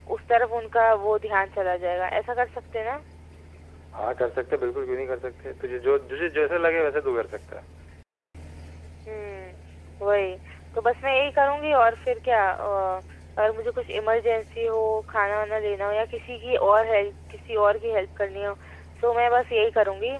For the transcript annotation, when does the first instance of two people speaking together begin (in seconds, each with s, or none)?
none